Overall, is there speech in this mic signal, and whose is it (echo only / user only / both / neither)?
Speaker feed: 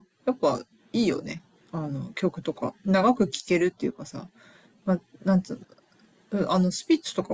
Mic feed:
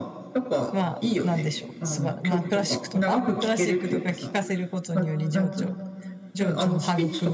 both